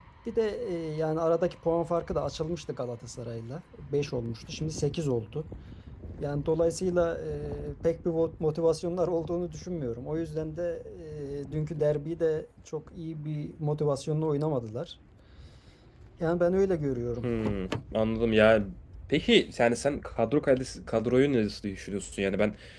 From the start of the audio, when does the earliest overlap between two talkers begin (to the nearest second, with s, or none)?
none